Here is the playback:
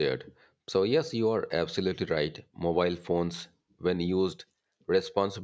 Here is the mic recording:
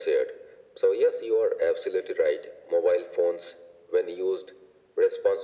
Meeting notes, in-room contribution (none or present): none